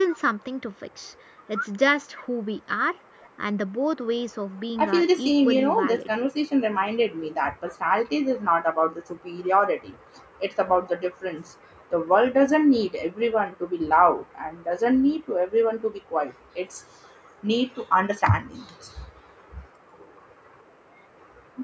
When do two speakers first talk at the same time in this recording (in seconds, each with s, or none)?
4.8 s